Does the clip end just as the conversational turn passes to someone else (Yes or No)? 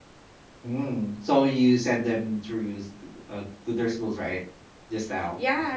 Yes